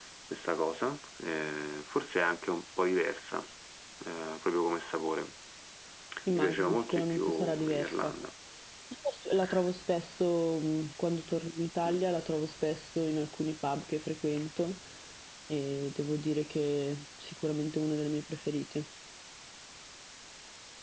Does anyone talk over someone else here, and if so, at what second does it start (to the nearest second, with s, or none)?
6 s